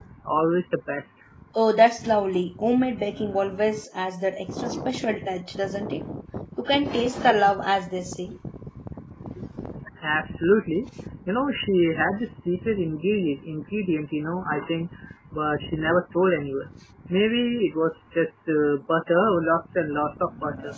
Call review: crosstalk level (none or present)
none